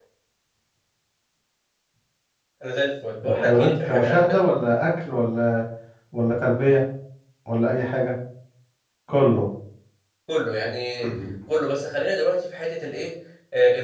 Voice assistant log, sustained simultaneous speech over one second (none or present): present